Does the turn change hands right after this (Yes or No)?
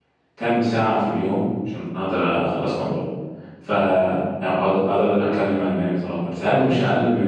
No